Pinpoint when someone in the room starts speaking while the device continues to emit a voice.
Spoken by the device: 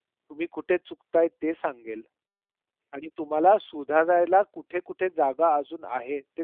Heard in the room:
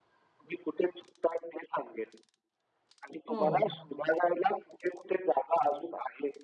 3.3 s

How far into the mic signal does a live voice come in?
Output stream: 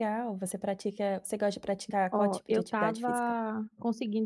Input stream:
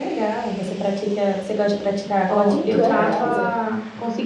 2.5 s

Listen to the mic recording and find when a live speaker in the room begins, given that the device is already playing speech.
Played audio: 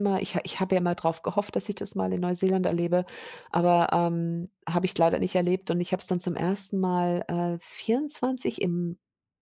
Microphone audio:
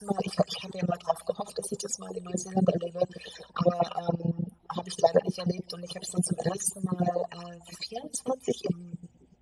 none

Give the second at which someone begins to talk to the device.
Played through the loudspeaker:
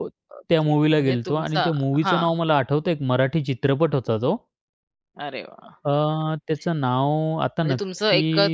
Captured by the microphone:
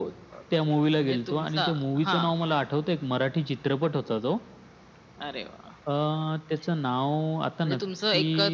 none

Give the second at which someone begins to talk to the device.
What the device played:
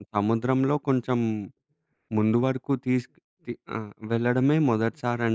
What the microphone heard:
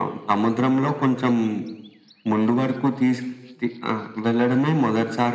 none

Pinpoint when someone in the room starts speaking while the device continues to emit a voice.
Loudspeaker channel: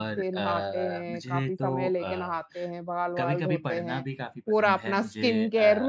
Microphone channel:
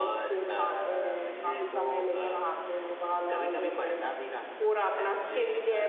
none

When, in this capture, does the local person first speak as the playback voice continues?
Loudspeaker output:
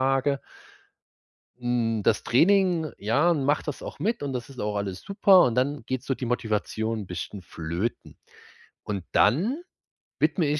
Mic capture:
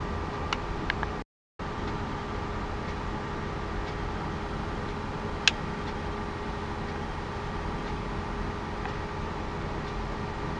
none

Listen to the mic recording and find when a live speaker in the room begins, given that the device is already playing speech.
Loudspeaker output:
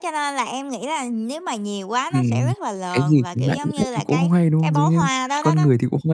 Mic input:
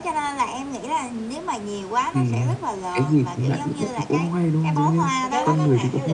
5.2 s

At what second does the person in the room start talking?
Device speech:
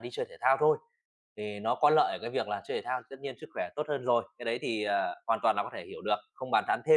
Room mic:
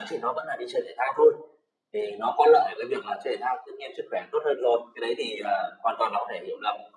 none

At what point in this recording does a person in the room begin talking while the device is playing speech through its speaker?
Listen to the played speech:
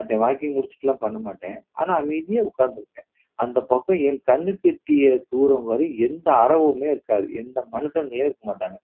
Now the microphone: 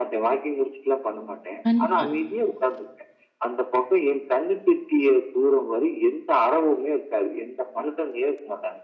1.6 s

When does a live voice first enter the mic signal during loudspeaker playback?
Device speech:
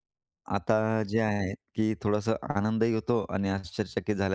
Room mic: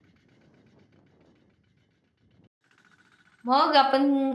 3.4 s

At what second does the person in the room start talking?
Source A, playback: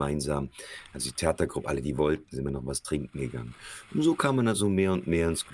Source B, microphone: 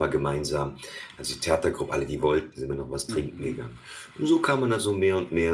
3.1 s

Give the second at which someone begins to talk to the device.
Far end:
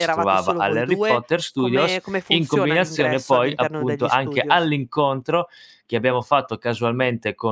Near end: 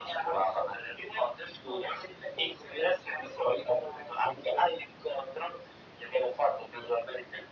none

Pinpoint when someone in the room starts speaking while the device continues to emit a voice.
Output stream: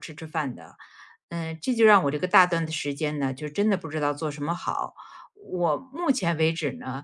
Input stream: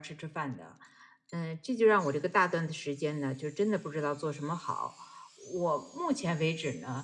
none

